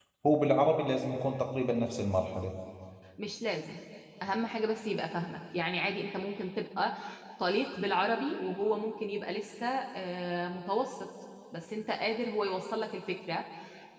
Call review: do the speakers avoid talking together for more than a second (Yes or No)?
Yes